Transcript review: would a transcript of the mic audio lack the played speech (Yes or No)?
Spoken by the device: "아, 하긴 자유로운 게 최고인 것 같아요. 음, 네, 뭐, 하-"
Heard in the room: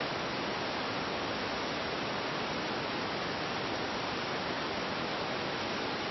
Yes